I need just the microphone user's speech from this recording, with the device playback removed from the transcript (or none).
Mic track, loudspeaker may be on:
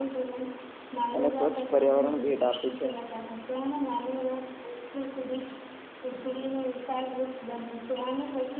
અને સ્વચ્છ પર્યાવરણ ભેટ આપે છે